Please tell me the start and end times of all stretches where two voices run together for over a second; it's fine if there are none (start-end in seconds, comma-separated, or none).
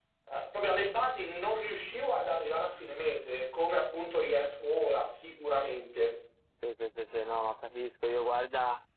none